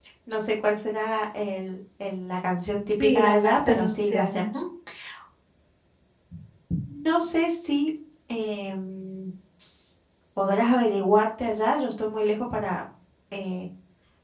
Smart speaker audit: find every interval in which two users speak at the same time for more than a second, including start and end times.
3.0-4.4

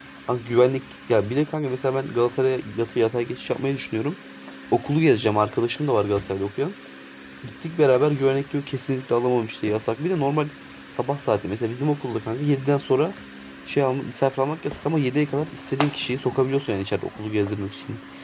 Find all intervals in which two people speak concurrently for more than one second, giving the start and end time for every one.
none

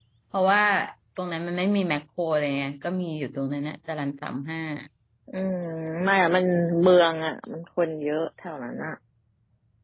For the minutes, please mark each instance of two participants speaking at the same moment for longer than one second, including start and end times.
none

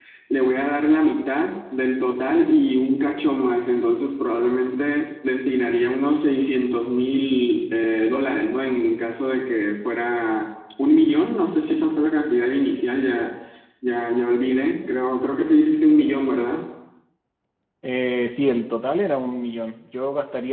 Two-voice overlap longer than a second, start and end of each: none

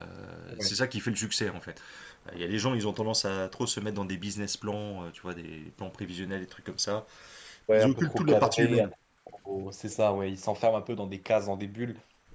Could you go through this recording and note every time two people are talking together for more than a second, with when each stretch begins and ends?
7.7-8.9

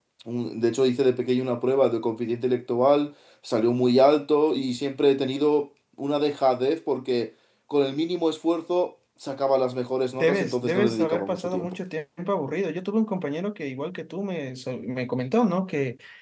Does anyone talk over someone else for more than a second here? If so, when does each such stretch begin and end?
10.2-11.7

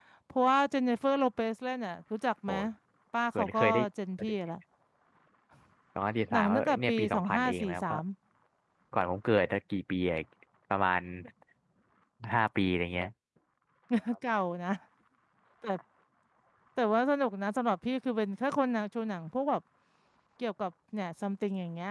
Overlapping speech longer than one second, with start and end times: 6.3-8.0

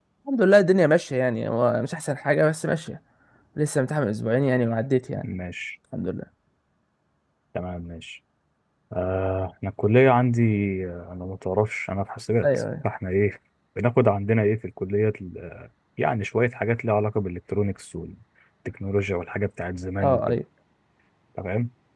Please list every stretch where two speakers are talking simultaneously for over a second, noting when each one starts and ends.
none

